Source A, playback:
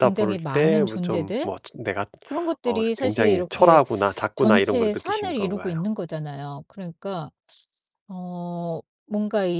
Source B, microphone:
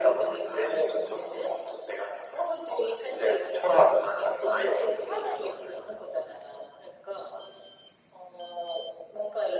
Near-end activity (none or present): none